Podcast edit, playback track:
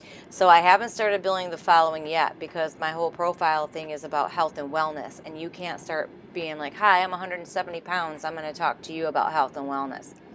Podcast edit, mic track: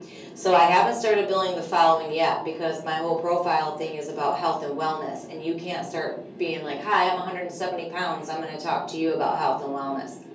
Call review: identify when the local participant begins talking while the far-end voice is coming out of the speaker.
none

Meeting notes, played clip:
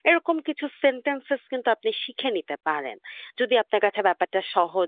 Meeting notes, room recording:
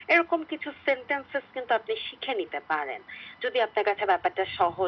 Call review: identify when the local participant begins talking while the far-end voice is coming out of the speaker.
none

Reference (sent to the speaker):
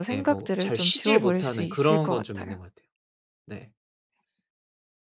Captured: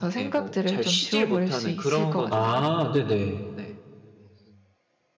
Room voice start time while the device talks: 2.3 s

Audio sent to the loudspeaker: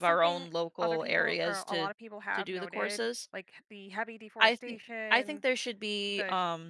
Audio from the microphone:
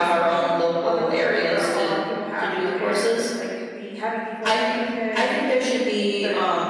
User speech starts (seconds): none

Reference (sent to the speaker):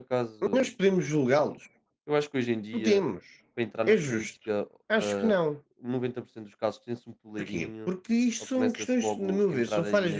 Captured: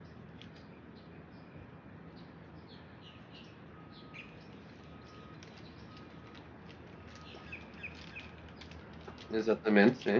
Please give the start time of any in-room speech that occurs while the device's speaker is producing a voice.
9.3 s

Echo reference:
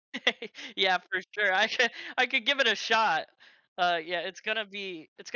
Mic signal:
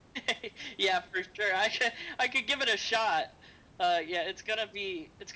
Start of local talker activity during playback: none

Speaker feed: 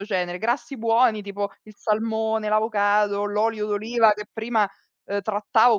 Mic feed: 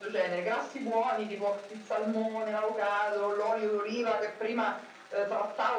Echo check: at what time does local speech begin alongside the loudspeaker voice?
none

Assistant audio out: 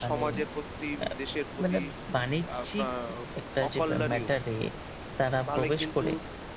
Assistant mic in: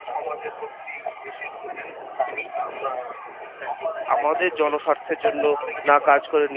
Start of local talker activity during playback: 4.2 s

